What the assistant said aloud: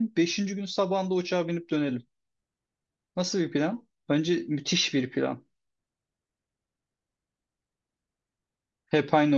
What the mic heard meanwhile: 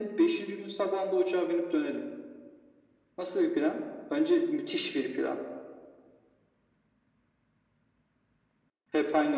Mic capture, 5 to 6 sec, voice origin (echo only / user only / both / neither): echo only